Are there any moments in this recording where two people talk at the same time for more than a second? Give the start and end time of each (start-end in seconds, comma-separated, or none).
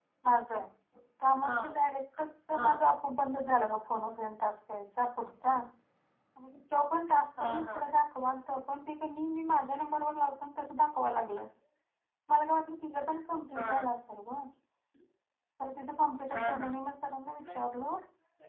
none